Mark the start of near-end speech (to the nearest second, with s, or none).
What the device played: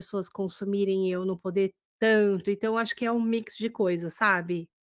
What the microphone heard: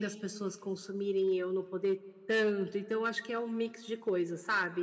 none